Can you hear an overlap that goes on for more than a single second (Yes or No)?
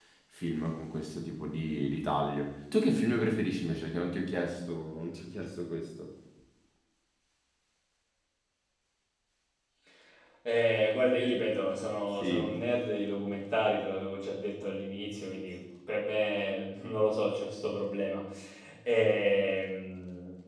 No